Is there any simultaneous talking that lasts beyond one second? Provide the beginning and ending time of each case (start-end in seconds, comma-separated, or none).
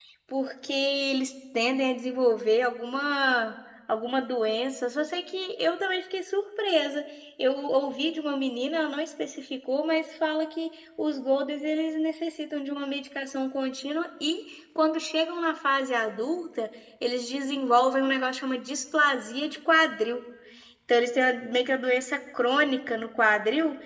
none